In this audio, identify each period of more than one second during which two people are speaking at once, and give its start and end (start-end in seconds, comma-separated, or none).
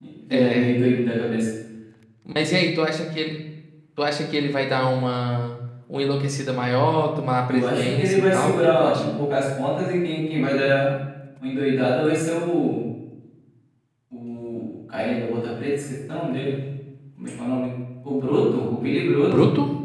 7.5-9.2